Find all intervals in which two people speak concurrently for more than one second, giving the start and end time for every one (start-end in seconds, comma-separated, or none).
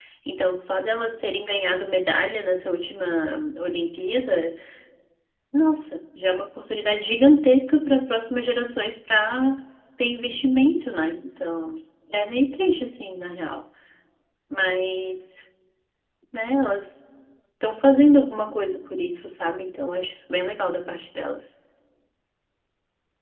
none